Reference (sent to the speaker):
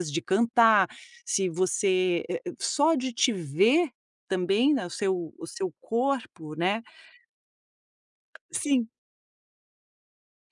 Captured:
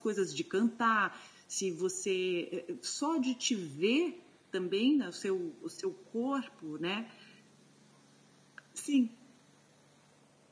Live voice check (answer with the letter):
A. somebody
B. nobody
B